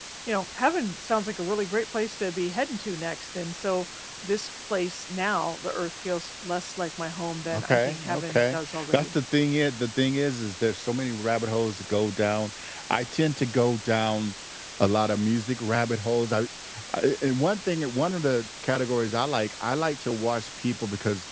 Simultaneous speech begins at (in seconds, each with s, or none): 7.5 s